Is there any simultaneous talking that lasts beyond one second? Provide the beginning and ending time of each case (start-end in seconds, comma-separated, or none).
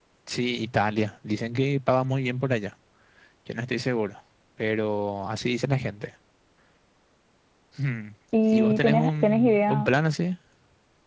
8.5-9.9